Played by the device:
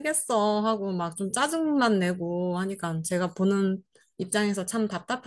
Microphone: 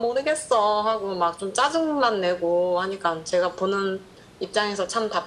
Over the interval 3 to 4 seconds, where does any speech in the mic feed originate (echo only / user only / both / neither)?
echo only